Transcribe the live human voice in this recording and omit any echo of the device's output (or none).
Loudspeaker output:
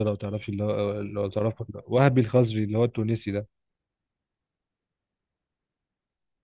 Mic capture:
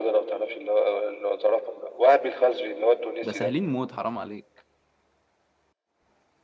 ده سهلين موت حرام عليك